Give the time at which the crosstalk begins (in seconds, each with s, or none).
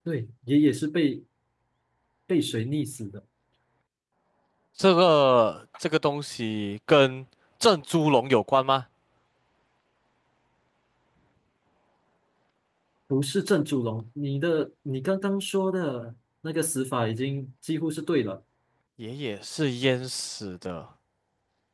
none